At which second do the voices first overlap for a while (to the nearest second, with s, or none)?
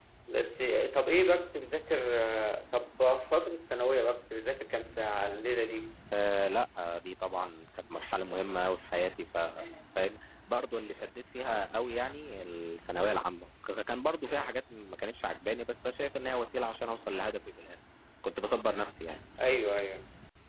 none